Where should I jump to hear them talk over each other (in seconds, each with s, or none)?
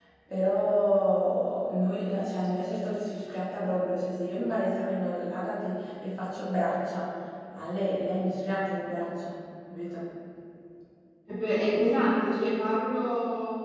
none